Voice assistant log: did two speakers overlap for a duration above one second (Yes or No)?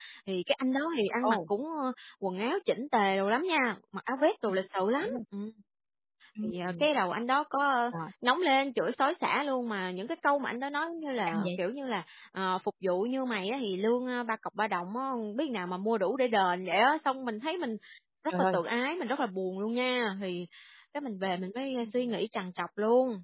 No